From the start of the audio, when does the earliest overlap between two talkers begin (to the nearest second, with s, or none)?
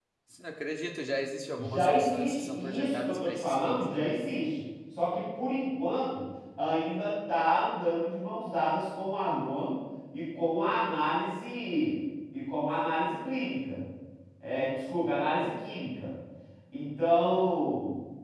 2 s